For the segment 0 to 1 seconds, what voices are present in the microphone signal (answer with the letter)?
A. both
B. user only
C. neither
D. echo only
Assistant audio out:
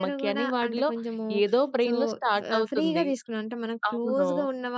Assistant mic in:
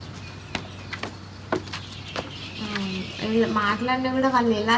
C